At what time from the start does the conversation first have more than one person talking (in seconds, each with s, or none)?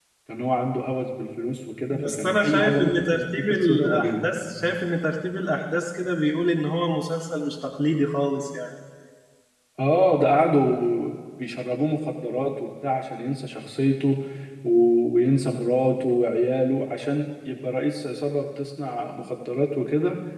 1.9 s